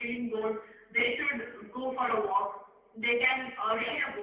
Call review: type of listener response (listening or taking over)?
listening